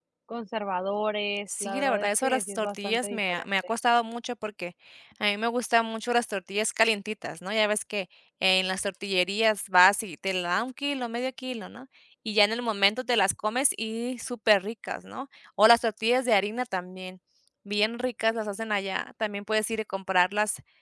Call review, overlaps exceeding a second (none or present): present